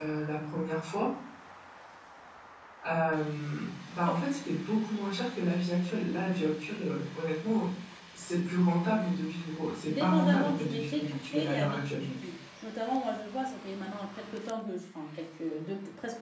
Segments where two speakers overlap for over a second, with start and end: 9.9-12.0

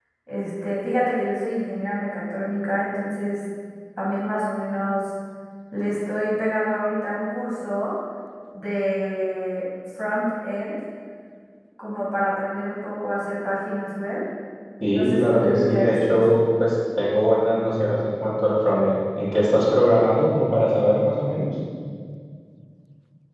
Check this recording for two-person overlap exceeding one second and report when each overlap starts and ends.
14.9-16.4

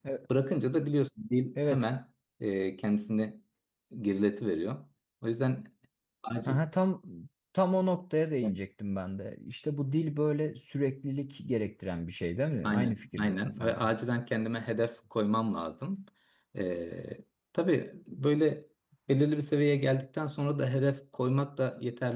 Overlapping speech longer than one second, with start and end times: 12.6-13.9

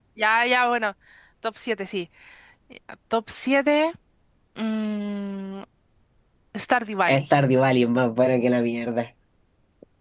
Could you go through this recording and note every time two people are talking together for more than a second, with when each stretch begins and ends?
none

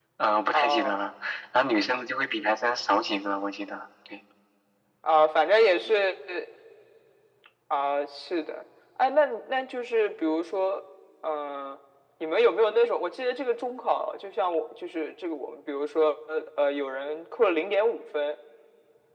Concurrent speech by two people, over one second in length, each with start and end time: none

